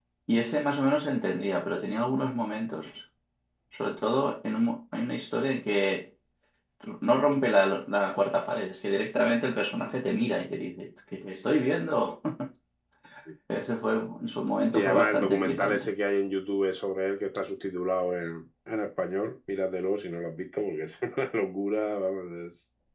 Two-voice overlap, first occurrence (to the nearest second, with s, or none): 15 s